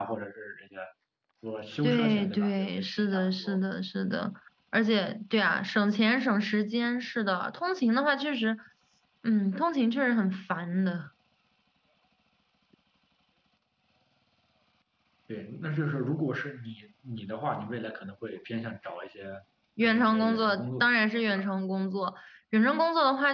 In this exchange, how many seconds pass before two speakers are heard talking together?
1.8 s

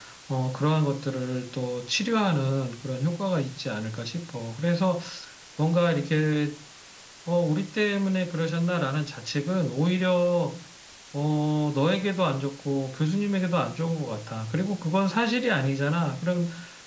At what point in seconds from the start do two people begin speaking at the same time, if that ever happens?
none

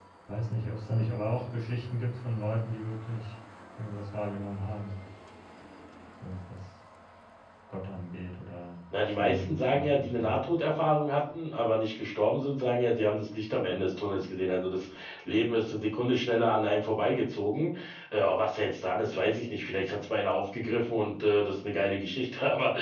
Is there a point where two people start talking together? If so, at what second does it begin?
8.9 s

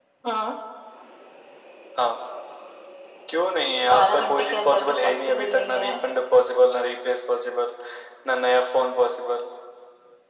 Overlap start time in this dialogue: 3.9 s

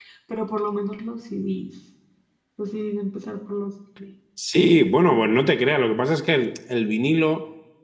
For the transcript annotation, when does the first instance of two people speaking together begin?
none

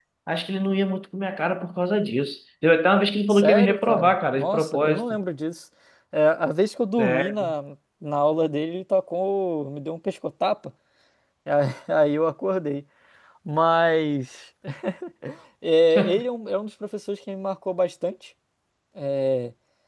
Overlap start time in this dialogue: 3.3 s

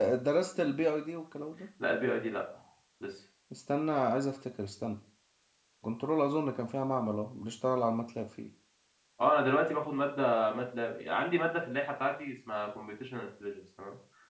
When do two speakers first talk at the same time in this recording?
none

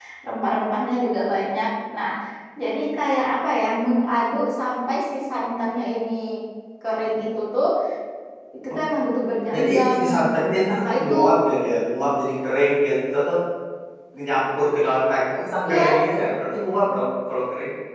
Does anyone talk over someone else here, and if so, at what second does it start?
9.5 s

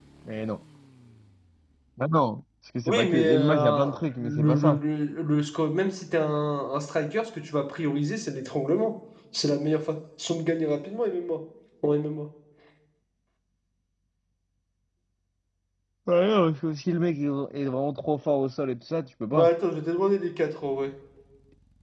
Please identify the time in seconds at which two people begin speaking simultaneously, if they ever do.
2.9 s

